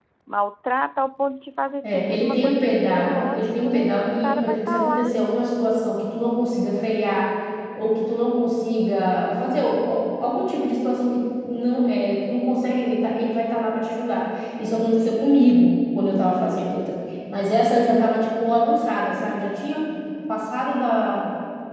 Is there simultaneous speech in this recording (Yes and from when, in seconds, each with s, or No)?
Yes, from 1.8 s